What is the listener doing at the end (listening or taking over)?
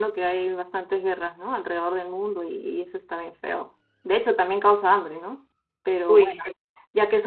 listening